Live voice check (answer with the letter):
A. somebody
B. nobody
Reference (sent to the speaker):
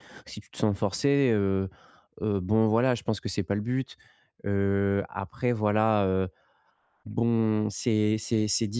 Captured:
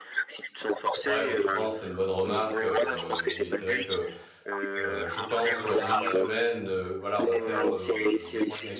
A